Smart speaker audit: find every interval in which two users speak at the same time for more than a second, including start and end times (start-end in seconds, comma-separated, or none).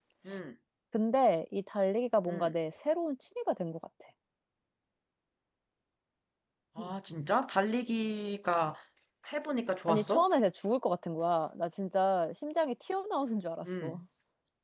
none